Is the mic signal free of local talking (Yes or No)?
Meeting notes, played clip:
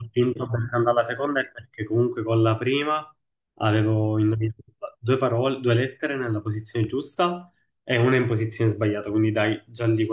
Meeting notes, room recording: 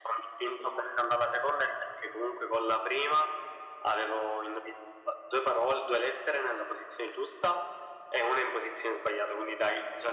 Yes